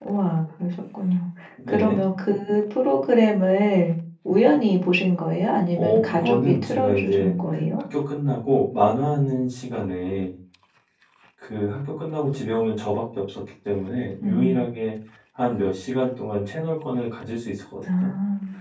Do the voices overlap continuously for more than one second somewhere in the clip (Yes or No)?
Yes